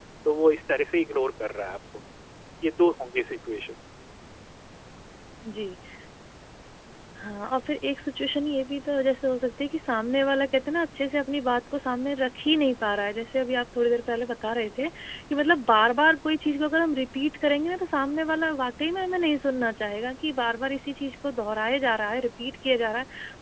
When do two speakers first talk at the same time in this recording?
none

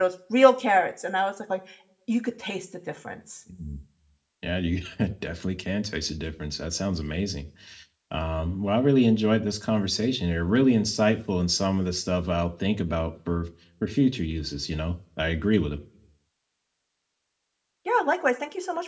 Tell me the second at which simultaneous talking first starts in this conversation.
none

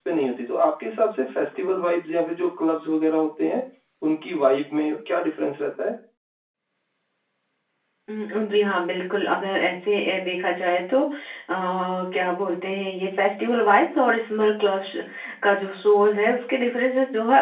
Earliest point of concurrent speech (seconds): none

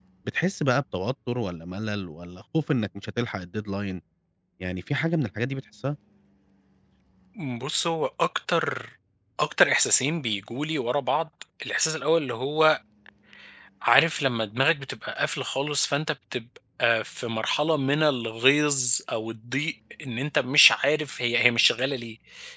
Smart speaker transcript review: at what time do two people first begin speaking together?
none

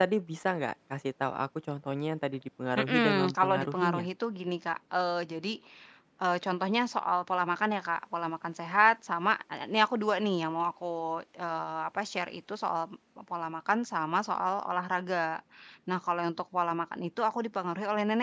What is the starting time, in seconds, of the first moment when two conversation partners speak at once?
2.8 s

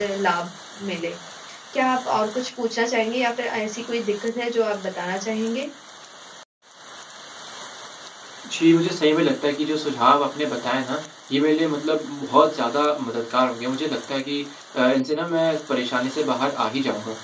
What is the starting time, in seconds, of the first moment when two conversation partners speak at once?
none

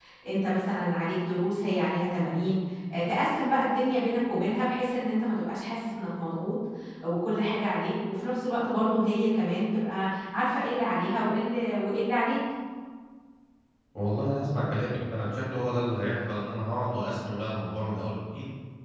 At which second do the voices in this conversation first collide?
none

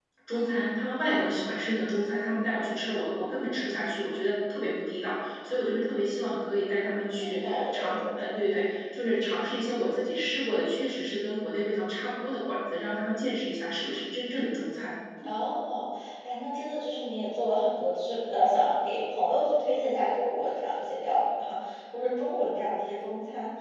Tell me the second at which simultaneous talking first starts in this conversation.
7.2 s

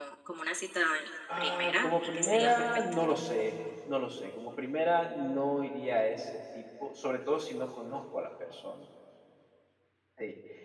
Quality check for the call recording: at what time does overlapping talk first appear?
1.3 s

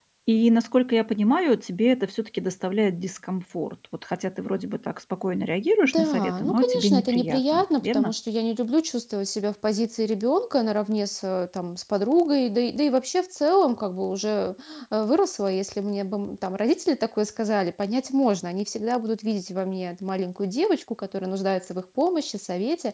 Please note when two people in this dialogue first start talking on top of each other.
5.8 s

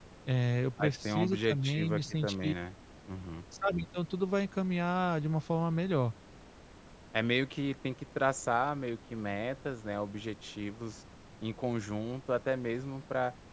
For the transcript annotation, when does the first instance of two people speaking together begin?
0.8 s

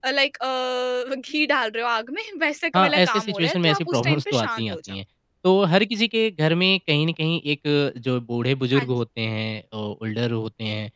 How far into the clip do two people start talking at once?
2.8 s

